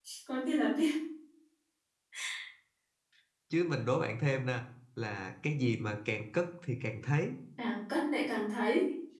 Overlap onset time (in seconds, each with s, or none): none